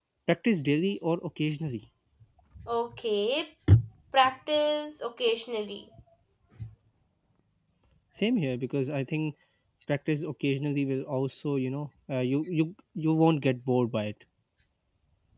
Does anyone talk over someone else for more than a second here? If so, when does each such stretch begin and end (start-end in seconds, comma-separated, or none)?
none